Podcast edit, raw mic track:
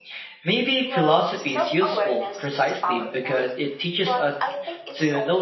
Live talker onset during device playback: 0.8 s

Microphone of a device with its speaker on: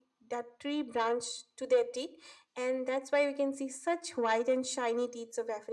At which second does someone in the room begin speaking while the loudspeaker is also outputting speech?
none

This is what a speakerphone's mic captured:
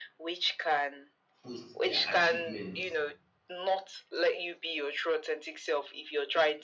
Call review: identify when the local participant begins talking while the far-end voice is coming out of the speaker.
1.4 s

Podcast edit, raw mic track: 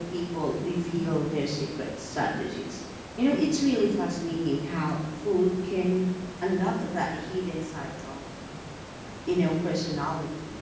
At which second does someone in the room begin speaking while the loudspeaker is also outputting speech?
none

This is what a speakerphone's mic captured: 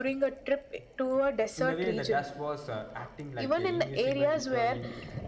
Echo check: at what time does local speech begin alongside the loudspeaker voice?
1.6 s

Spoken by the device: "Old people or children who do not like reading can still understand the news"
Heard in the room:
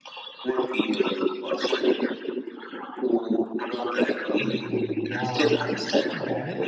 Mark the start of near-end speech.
4.4 s

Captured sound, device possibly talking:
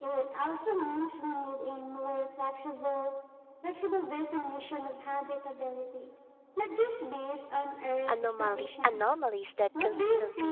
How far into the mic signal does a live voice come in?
8.1 s

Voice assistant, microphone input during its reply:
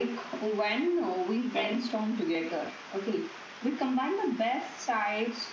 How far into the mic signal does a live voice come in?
none

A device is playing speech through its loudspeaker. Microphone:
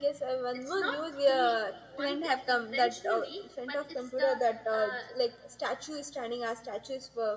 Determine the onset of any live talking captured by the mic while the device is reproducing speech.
0.5 s

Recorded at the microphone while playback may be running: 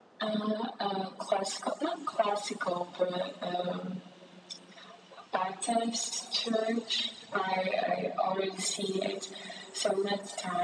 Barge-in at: none

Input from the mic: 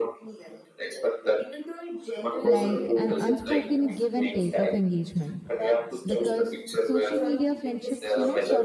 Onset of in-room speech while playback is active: 2.5 s

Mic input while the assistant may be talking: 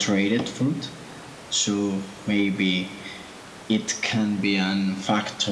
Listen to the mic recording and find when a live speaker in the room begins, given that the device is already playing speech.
none

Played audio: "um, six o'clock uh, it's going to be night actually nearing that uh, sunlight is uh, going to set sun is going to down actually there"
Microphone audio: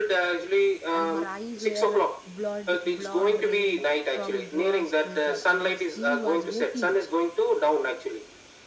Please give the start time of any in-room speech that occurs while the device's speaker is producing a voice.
0.9 s

